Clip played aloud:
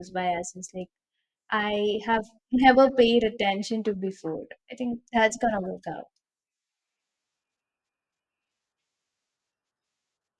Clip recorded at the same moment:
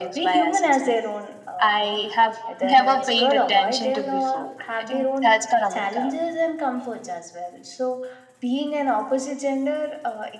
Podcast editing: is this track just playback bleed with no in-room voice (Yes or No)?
No